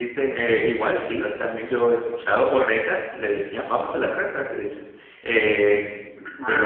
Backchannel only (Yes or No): Yes